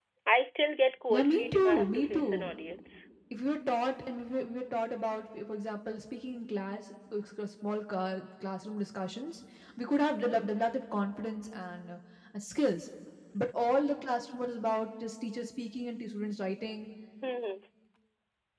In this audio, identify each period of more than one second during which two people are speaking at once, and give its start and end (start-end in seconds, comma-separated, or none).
1.1-2.5